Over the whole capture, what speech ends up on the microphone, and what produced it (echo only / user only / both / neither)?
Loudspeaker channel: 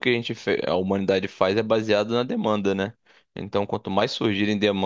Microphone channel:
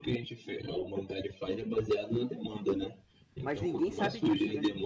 both